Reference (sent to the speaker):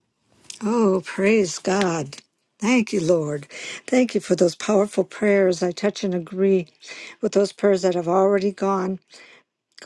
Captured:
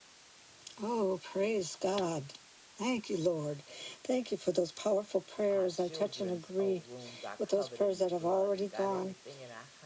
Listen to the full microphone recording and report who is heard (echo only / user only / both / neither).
both